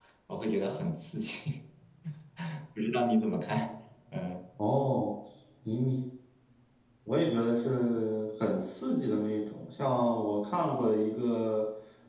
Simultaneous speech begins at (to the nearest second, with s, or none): none